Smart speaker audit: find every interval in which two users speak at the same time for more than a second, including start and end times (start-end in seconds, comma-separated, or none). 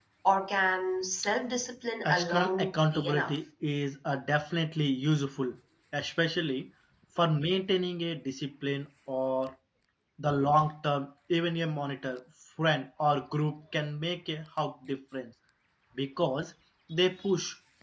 2.0-3.4